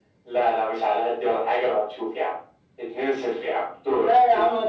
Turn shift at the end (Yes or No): Yes